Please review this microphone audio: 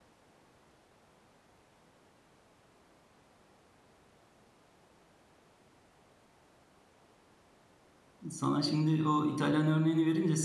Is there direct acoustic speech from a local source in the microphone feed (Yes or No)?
Yes